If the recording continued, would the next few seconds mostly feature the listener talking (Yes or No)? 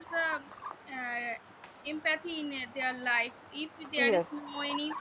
No